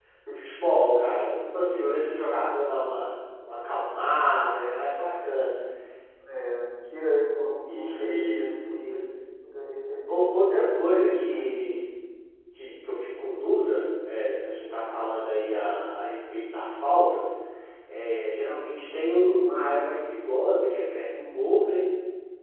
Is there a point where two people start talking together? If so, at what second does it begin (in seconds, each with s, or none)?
7.7 s